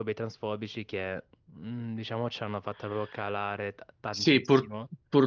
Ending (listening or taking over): taking over